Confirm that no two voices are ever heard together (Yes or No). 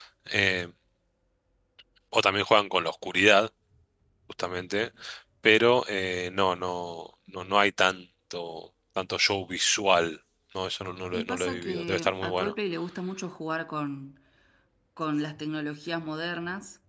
No